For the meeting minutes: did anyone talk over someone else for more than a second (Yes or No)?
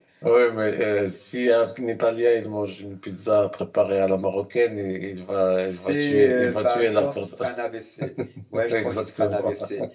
Yes